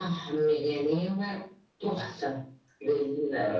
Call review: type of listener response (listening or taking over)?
taking over